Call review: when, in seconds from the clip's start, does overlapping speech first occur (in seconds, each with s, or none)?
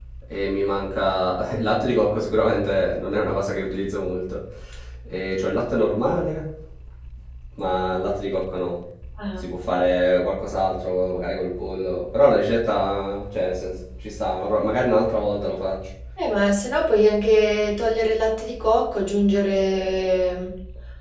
none